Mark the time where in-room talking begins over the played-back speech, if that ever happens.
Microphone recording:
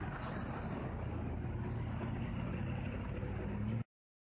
none

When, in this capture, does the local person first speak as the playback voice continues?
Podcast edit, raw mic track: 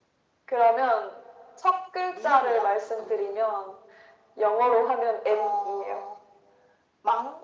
none

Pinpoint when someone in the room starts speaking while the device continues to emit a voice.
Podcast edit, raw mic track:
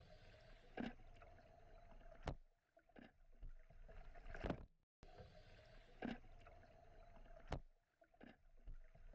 none

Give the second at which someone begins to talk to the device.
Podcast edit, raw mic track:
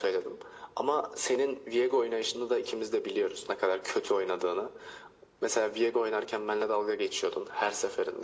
none

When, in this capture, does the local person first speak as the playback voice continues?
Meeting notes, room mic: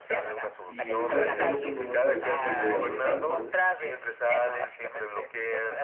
0.6 s

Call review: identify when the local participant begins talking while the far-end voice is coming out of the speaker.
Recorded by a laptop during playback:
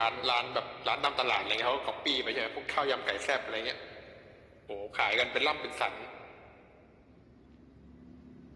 none

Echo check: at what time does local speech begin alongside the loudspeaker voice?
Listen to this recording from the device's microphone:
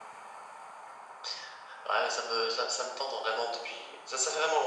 none

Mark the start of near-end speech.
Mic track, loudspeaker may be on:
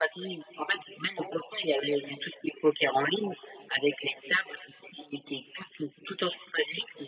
none

